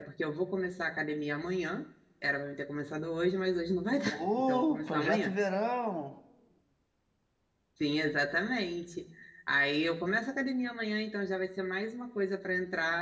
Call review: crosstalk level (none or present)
present